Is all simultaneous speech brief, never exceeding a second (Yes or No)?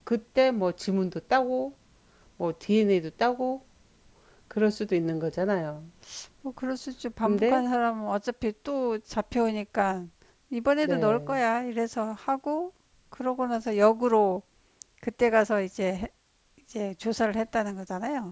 Yes